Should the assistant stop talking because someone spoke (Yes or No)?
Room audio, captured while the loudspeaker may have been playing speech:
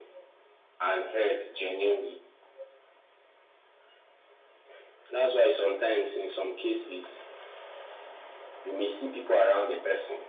No